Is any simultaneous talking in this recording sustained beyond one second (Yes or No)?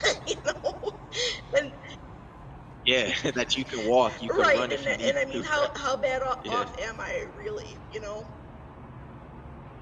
Yes